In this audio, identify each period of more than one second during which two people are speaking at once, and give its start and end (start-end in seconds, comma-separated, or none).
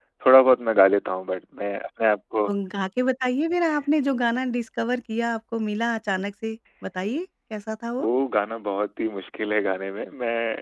none